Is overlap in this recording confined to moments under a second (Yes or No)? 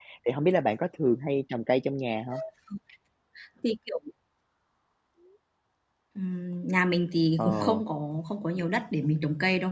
Yes